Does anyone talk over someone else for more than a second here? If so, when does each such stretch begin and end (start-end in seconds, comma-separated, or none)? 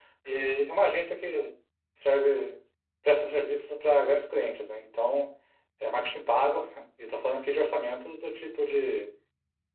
none